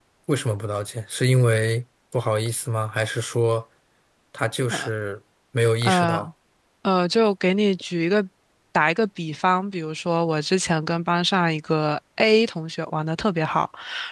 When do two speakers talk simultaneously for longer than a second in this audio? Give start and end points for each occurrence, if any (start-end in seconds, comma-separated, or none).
none